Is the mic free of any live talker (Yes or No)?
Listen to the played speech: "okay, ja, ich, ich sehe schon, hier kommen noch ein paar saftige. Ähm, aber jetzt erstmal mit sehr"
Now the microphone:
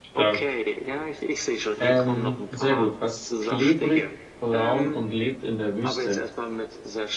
No